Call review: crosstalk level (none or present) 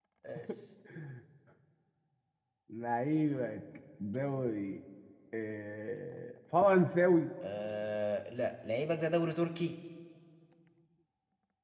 none